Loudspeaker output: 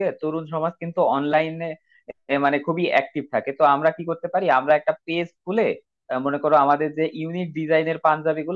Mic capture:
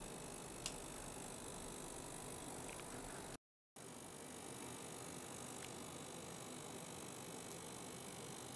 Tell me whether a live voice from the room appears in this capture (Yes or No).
No